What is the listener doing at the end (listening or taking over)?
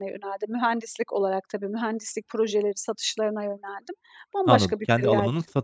taking over